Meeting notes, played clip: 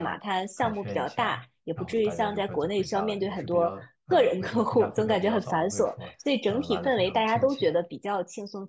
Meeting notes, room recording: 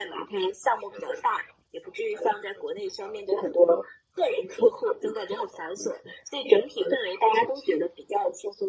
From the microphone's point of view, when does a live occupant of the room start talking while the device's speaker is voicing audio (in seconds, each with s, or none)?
none